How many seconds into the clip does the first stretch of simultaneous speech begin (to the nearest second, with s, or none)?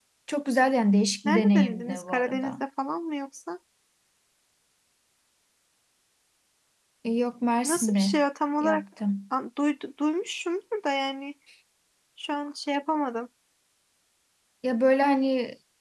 1 s